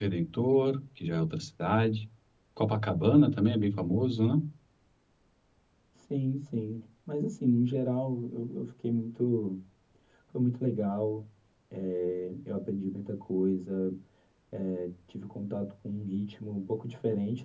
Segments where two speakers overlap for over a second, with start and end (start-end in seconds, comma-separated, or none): none